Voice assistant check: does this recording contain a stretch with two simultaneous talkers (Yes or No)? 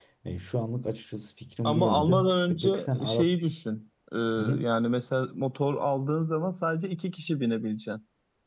Yes